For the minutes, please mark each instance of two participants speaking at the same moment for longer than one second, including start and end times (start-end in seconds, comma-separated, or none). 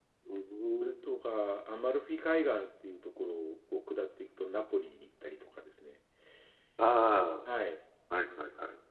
none